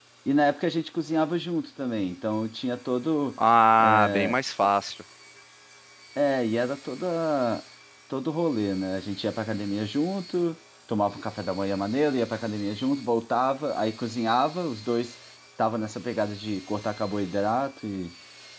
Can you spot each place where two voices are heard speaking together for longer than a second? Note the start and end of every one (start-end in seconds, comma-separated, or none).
none